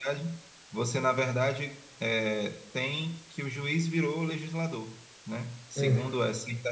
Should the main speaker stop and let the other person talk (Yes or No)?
No